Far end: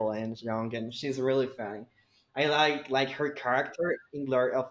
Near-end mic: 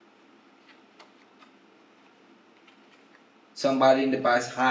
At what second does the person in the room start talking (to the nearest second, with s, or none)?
4 s